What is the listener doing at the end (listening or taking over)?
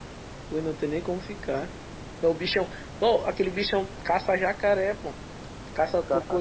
listening